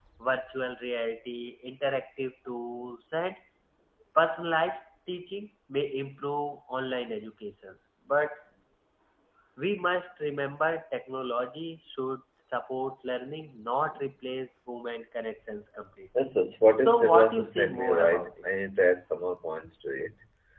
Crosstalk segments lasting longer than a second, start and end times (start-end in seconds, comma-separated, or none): 16.8-18.5